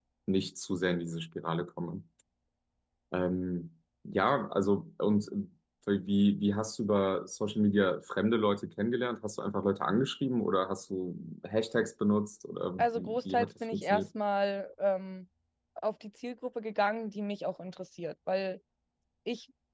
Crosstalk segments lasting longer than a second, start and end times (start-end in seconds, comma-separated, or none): 12.8-14.0